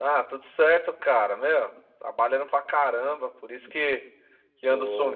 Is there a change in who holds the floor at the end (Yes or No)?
No